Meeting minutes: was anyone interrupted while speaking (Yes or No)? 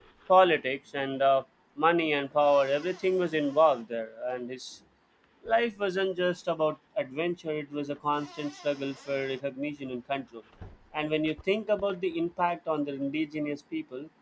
No